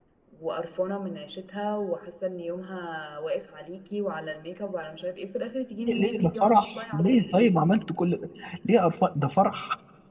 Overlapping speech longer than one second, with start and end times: 5.9-7.5

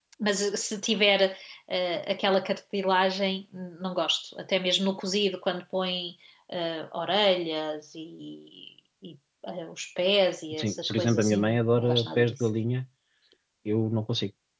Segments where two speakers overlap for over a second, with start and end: 10.6-12.4

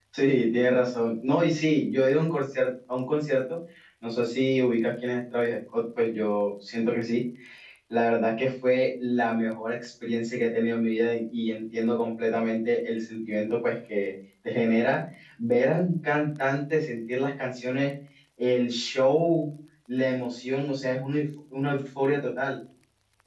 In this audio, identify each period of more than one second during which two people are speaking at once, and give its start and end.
none

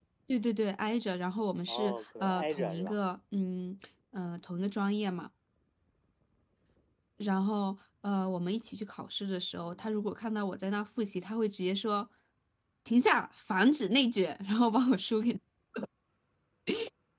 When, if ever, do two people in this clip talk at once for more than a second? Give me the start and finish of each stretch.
1.7-2.9

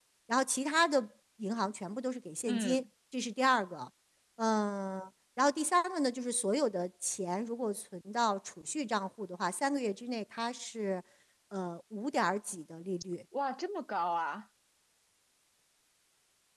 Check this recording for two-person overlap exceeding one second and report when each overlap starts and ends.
none

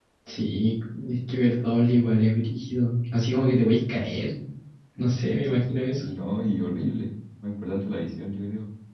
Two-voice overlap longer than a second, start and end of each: none

